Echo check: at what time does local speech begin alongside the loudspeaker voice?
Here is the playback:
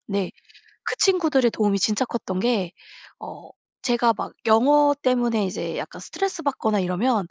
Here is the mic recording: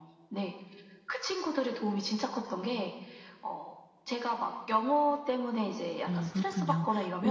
6.0 s

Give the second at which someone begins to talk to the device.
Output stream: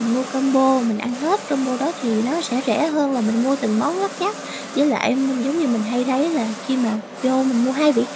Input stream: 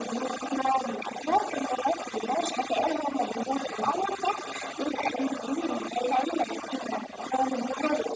none

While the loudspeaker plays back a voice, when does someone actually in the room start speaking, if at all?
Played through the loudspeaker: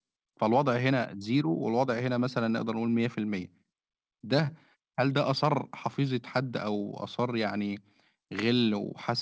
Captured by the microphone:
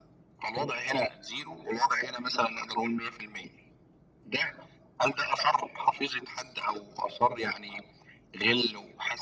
none

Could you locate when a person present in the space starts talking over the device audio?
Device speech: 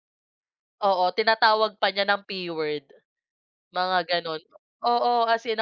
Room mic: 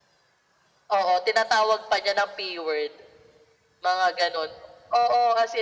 none

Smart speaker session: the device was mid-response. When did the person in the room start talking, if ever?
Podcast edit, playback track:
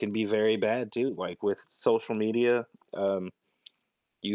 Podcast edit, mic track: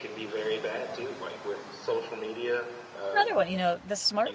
3.2 s

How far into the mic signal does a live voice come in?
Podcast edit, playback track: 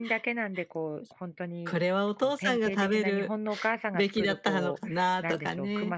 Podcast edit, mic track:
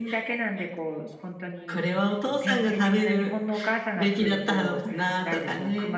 none

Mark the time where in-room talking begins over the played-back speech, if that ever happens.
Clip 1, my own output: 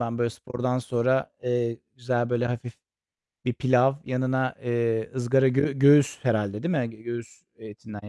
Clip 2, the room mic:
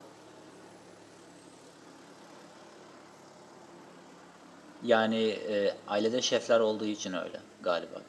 4.8 s

